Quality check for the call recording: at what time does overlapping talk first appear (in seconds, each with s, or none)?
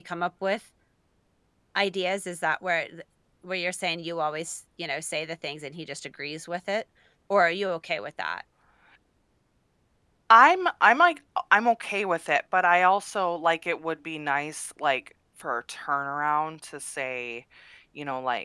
none